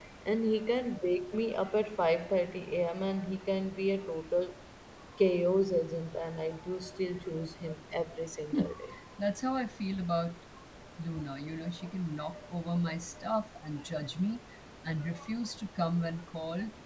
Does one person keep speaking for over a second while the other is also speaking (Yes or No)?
No